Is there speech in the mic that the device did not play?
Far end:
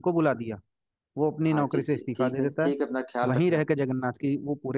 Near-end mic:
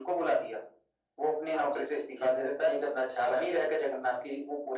No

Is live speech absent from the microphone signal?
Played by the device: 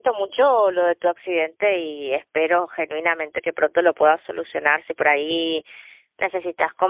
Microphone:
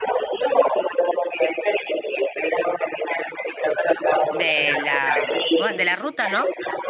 No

